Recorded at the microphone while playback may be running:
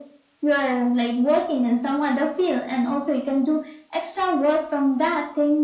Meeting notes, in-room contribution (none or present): none